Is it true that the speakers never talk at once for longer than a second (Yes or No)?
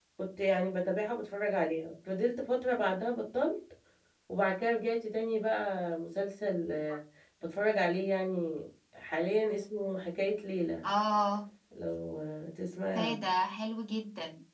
Yes